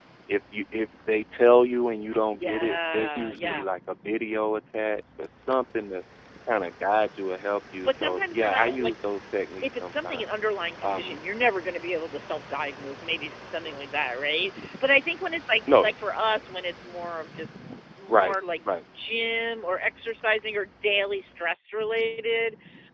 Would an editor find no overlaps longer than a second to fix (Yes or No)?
No